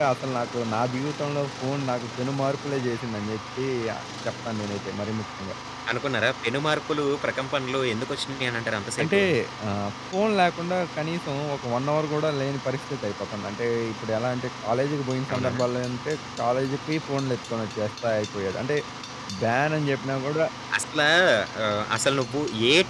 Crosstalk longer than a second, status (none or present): none